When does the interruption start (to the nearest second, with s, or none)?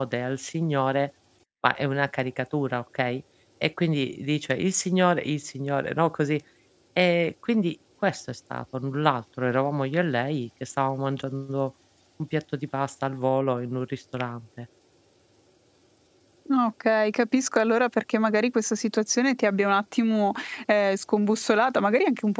none